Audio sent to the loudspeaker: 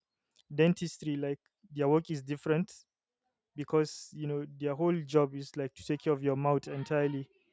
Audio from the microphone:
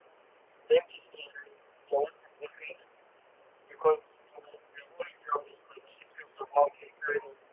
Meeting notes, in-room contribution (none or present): none